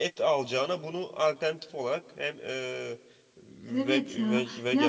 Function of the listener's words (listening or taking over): taking over